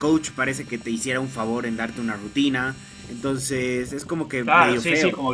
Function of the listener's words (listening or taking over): taking over